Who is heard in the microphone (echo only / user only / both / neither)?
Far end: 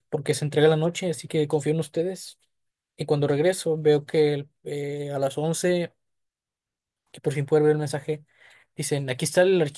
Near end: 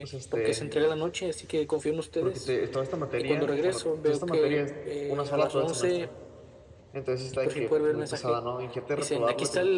both